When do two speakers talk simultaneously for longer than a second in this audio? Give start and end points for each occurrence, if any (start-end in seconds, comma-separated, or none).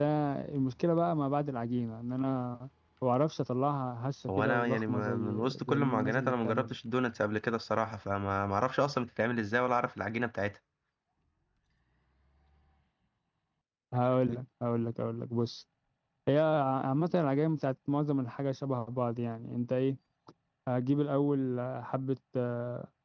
4.3-6.8